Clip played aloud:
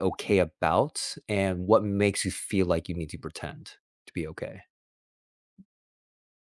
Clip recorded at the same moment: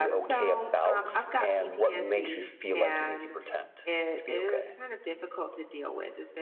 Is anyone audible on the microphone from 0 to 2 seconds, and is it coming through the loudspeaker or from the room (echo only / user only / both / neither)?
both